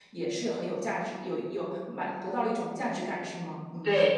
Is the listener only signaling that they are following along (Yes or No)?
No